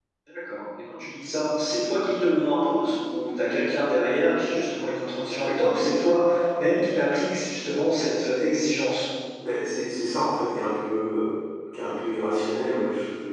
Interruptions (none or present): none